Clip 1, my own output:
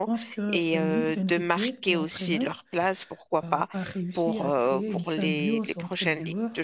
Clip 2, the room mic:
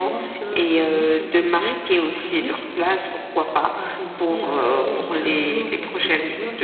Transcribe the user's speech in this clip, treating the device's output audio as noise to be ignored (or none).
none